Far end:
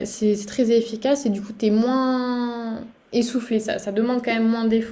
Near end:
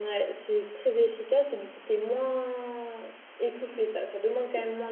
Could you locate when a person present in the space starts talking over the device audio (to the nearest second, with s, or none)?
none